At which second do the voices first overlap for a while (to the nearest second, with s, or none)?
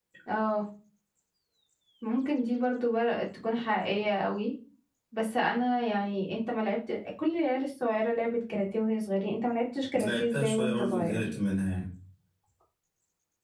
10 s